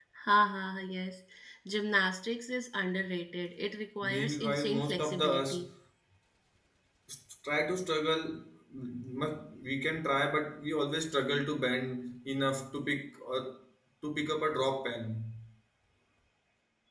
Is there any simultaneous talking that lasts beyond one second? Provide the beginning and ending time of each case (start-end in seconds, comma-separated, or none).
4.0-5.6